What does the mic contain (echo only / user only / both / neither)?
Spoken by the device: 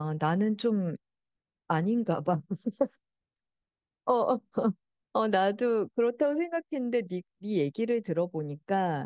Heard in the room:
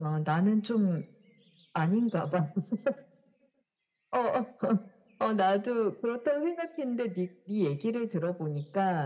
echo only